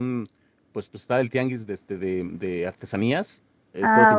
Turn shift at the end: No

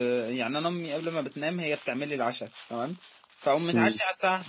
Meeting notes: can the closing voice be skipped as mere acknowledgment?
Yes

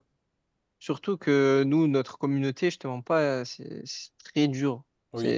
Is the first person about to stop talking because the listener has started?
Yes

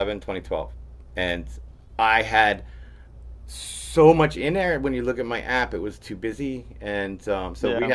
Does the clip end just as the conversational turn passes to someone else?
No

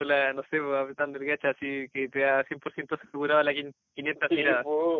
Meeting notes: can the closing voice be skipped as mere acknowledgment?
No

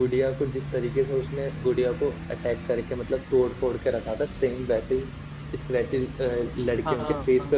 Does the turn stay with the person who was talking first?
No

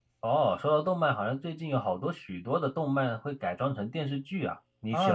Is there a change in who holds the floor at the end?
Yes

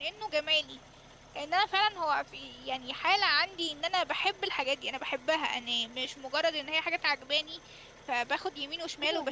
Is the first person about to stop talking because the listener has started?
Yes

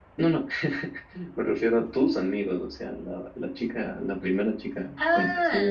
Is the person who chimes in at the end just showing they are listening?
No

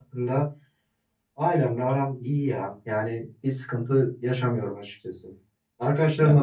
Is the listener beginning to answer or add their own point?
No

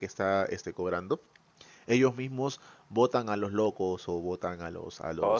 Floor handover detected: No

